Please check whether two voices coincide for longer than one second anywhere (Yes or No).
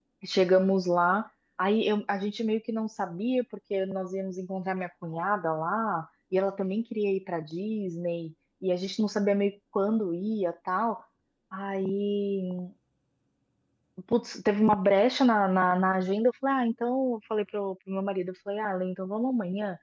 No